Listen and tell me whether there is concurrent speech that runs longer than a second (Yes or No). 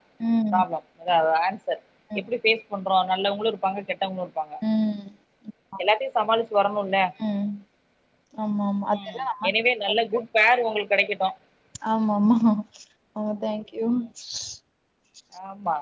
No